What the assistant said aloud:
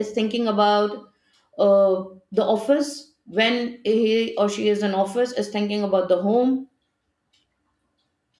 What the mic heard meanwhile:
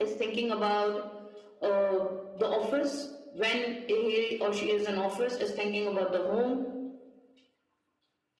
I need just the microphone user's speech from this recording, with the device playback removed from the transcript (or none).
none